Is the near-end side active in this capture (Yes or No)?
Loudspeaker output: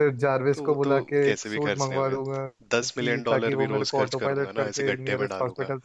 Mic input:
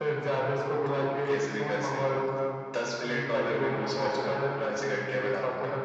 No